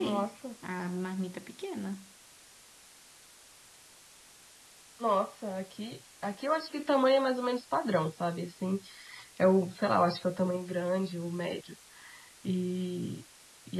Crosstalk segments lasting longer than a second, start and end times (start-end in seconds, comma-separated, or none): none